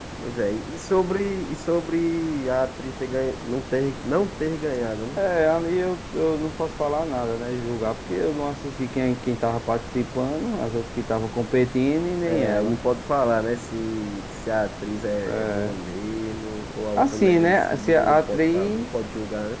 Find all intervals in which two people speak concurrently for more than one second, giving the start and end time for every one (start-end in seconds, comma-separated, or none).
17.0-18.8